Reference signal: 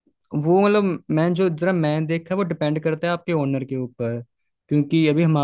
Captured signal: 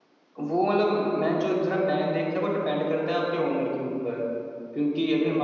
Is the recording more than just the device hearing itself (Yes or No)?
No